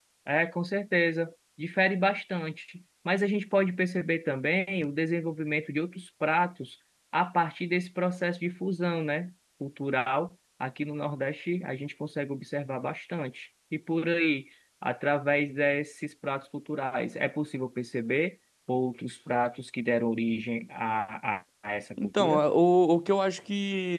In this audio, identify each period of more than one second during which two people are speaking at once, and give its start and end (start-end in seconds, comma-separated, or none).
none